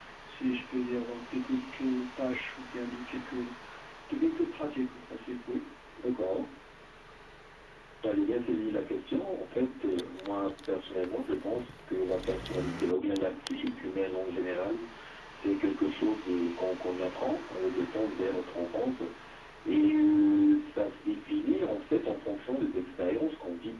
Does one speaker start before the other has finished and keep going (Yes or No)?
No